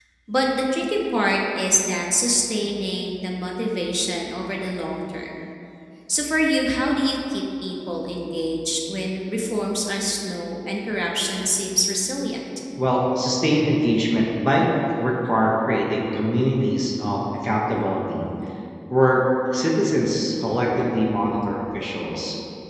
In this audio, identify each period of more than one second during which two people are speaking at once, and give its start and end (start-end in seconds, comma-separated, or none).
none